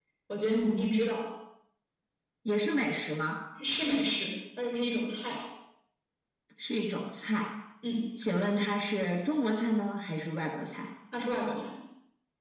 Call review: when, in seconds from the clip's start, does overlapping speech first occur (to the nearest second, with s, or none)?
none